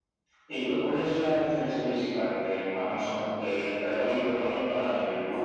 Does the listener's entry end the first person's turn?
Yes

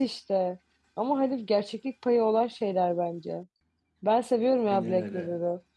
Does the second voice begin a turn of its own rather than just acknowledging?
No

